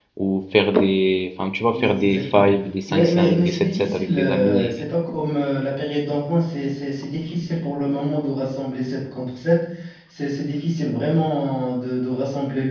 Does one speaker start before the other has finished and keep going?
Yes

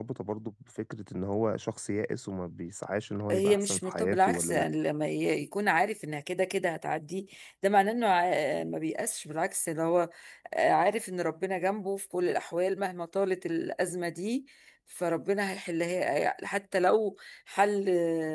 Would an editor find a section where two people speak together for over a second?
Yes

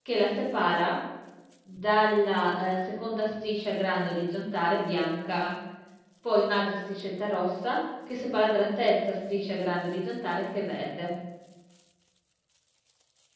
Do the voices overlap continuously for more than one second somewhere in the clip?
No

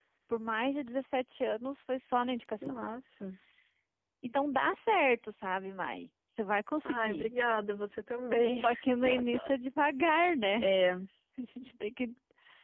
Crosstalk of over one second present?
No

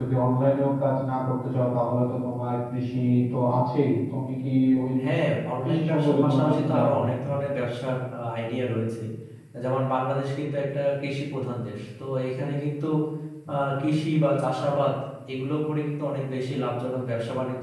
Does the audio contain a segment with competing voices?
Yes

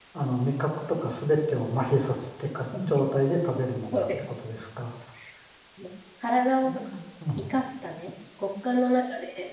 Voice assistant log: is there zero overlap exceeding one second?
Yes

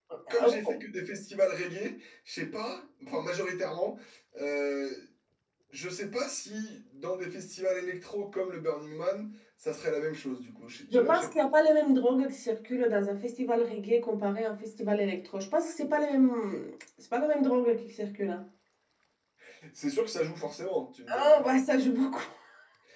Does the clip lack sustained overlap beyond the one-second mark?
Yes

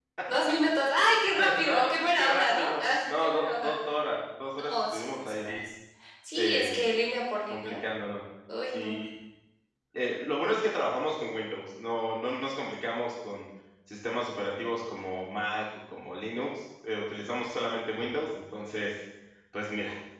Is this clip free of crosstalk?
No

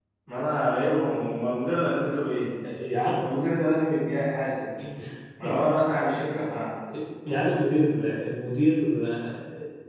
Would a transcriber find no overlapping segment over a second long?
Yes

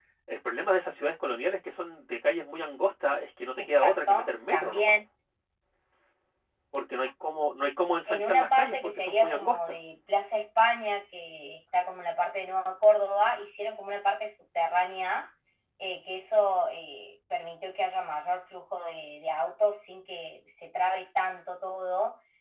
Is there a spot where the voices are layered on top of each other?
Yes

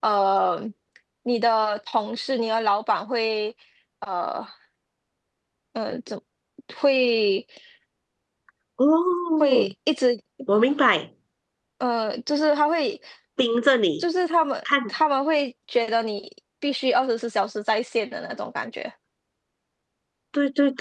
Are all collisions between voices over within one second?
Yes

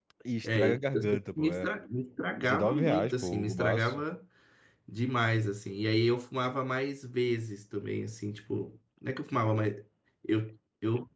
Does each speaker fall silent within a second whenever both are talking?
No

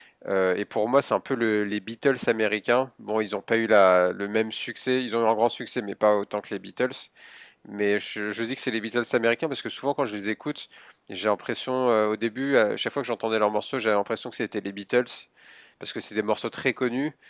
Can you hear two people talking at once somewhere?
No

